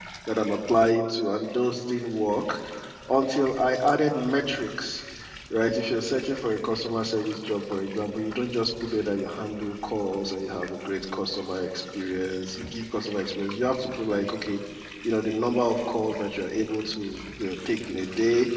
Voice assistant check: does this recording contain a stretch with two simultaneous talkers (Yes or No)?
No